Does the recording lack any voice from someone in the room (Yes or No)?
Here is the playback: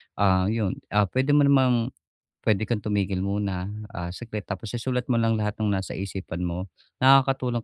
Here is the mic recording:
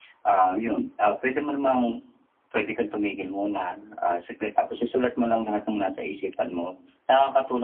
Yes